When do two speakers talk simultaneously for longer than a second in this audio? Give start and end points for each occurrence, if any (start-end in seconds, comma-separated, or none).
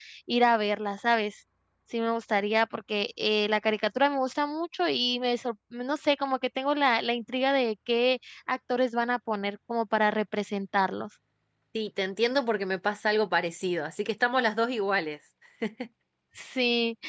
none